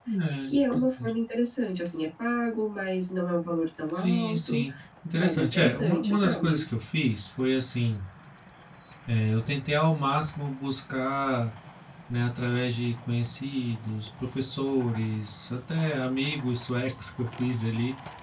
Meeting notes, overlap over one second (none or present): present